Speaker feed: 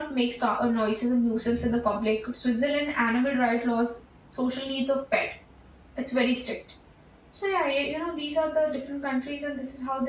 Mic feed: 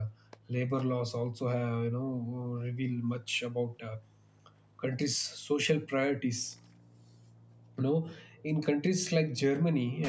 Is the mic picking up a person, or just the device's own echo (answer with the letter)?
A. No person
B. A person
B